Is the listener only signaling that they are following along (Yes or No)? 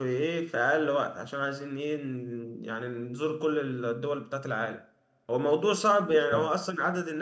Yes